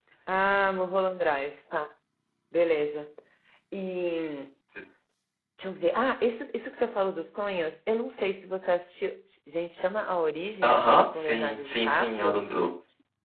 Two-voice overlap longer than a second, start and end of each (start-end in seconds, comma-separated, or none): 10.6-12.4